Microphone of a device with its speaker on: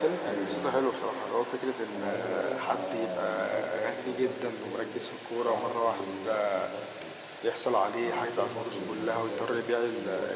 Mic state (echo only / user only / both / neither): both